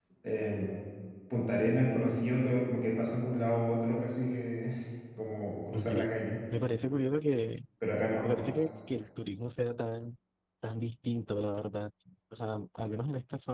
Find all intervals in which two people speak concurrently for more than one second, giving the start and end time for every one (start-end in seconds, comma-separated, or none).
none